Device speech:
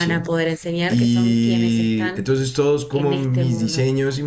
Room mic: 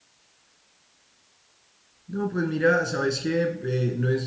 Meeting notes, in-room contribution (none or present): present